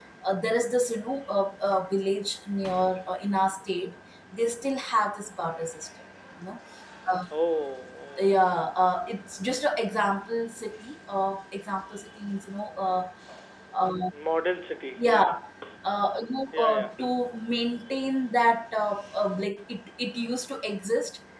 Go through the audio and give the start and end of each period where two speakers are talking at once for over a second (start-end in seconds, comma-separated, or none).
none